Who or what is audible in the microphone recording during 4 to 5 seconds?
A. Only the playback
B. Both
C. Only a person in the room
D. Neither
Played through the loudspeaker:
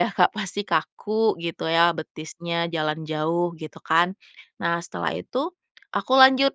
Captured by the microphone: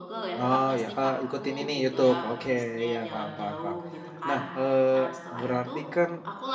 B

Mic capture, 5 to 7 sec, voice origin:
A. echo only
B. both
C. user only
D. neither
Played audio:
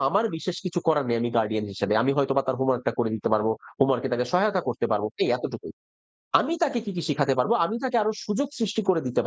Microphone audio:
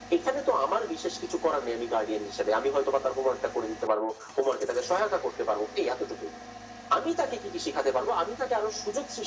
A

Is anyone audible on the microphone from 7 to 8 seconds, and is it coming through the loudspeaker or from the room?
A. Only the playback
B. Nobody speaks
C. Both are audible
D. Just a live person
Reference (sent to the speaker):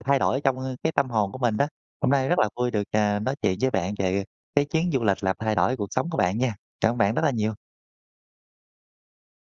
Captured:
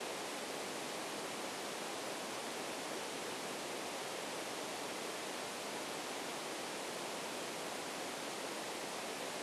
B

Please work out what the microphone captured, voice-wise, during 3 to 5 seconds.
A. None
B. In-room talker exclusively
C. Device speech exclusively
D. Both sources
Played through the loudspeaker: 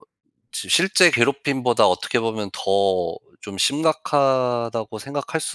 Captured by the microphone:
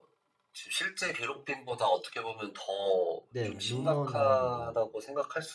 D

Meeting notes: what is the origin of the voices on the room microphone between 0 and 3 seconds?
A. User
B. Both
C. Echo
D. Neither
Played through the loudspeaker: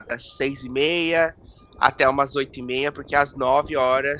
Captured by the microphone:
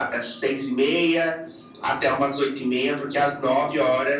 C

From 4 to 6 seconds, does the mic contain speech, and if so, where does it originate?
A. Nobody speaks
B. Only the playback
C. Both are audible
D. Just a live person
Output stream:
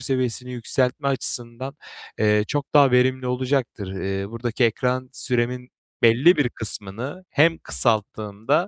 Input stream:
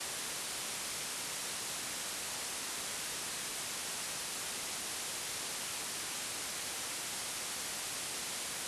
A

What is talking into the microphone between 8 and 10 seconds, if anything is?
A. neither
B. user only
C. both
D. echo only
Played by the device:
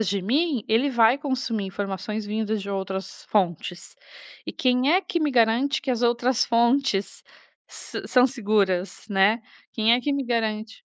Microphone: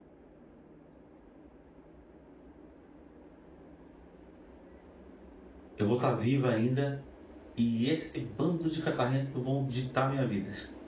B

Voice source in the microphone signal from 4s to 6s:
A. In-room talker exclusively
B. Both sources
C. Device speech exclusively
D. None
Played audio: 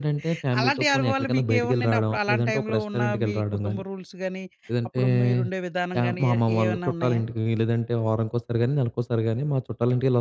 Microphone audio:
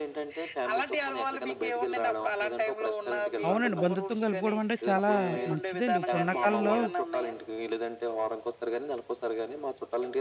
B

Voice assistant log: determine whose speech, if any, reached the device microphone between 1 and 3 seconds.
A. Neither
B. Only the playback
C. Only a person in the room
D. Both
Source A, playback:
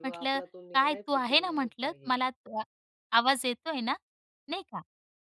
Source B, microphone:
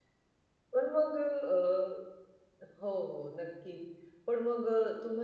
C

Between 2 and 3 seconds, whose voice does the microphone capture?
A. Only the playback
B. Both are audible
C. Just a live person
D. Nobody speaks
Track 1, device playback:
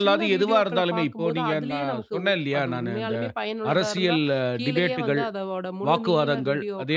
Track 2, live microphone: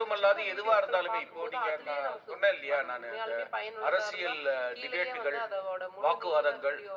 A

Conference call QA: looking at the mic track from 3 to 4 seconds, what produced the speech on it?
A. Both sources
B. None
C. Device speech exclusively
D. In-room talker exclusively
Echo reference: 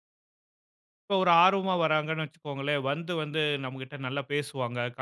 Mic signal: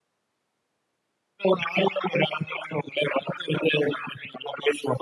C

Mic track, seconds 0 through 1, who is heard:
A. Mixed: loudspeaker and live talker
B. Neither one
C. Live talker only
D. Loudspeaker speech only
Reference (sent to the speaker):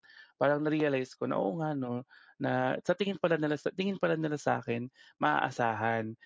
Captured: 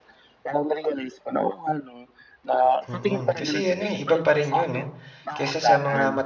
D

